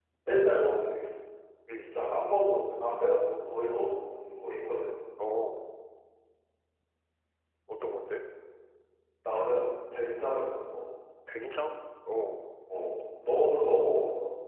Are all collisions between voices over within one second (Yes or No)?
Yes